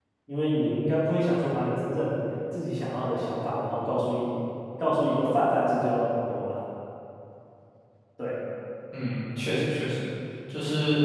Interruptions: none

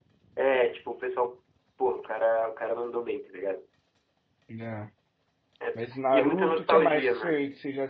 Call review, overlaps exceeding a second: present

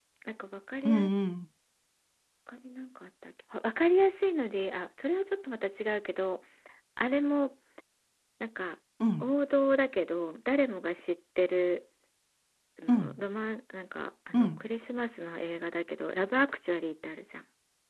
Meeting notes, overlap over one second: none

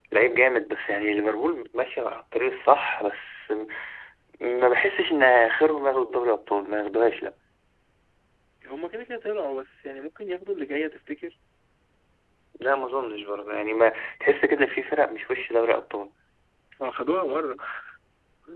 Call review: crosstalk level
none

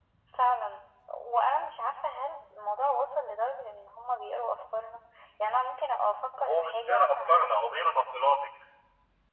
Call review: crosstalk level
present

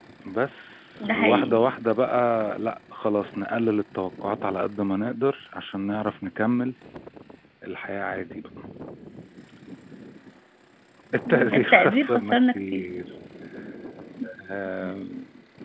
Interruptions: present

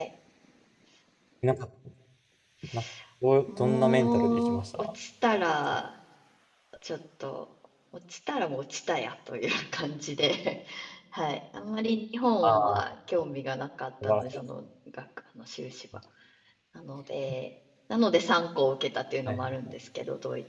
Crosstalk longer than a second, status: present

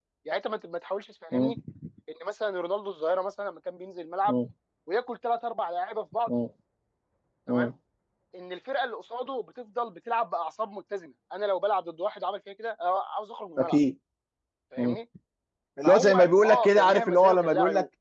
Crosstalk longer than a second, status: present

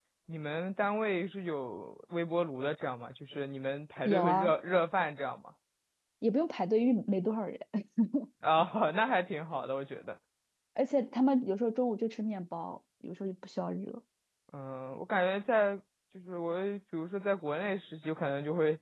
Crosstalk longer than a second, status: none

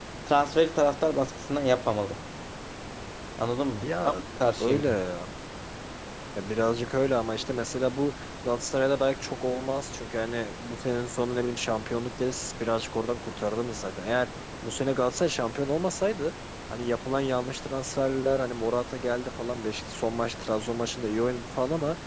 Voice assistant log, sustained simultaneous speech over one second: none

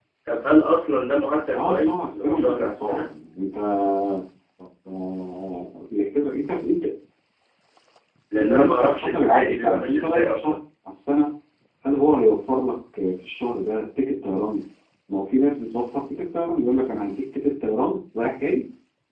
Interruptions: present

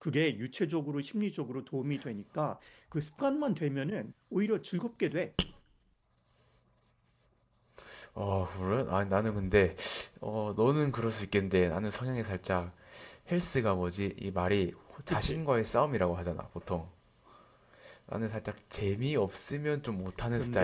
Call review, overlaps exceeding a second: none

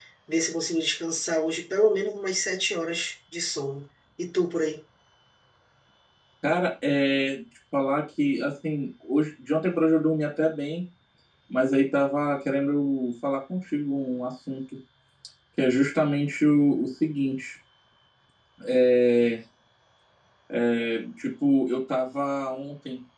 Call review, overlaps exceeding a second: none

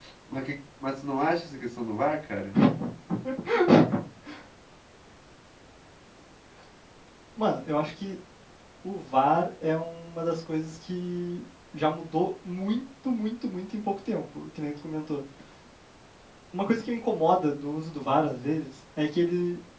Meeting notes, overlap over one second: none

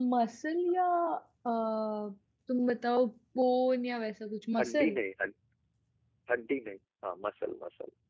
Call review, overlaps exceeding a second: none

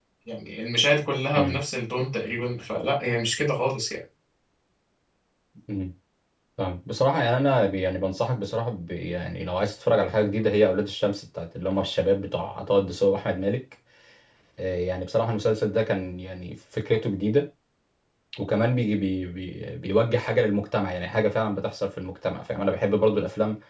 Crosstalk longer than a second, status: none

